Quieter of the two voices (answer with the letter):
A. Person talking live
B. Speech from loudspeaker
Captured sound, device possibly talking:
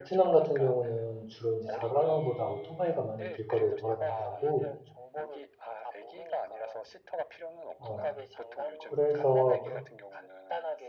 B